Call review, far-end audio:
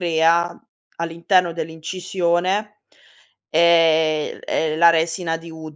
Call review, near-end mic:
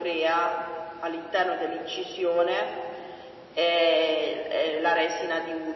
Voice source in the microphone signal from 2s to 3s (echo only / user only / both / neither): echo only